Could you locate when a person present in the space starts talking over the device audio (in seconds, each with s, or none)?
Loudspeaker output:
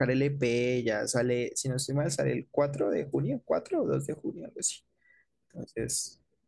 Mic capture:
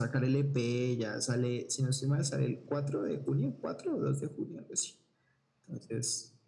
none